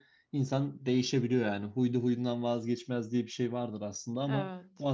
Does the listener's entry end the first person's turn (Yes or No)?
No